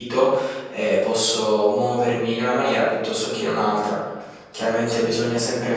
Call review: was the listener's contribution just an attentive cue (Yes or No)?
Yes